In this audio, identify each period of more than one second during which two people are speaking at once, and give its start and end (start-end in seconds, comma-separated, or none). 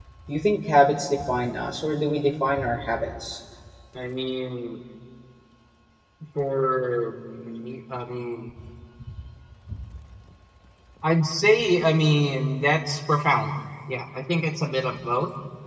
none